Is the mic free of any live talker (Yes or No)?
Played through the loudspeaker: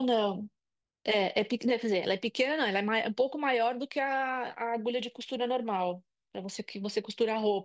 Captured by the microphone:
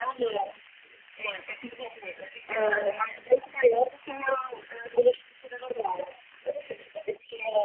No